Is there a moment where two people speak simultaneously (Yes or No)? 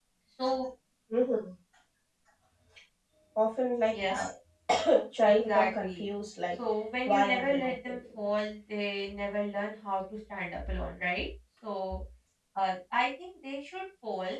Yes